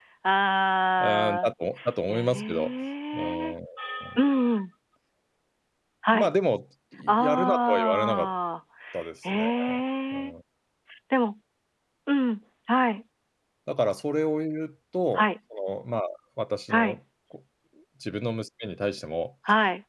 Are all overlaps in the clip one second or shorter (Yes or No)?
No